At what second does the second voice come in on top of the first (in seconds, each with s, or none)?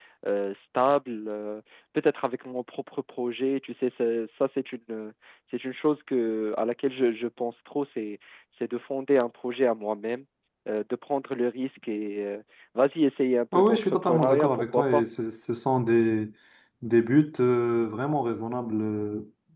13.5 s